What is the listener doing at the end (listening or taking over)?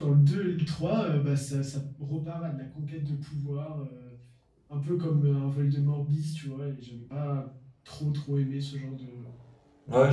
taking over